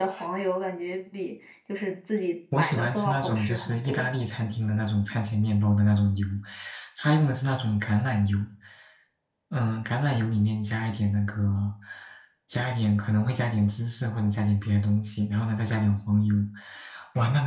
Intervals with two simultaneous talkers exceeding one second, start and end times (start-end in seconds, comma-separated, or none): 2.6-4.1